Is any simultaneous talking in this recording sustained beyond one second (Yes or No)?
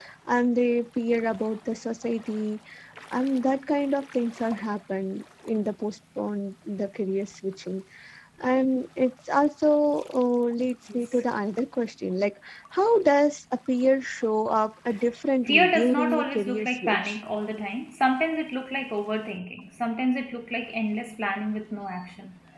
Yes